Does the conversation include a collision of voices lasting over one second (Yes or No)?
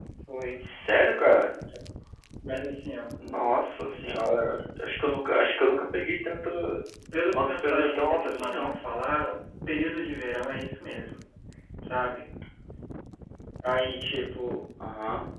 Yes